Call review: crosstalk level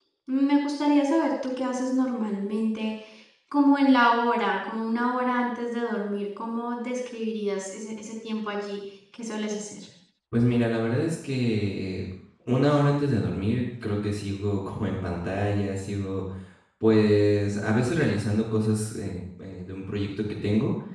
none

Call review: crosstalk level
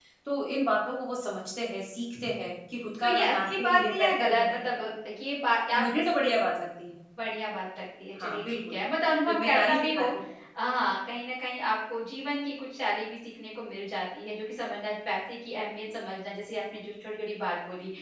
present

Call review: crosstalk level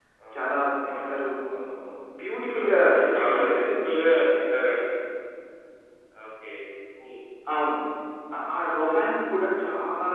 present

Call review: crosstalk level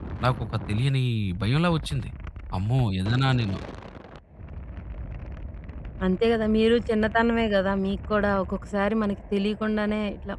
none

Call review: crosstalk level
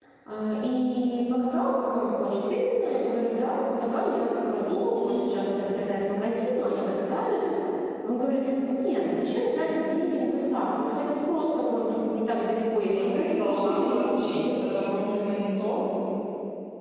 present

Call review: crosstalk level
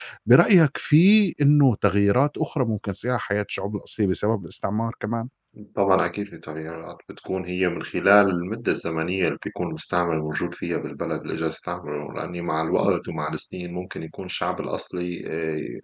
none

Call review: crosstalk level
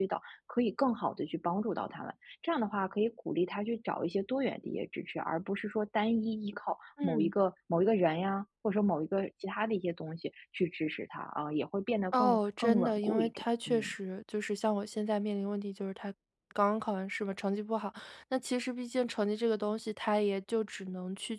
present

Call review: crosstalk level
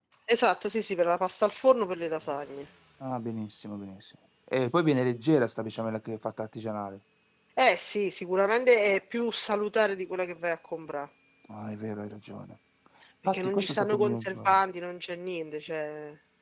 present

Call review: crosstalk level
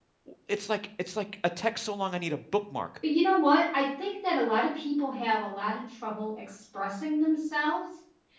none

